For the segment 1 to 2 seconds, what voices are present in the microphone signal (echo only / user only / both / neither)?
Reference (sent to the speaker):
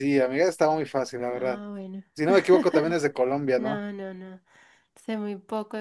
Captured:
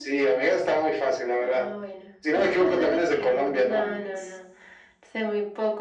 echo only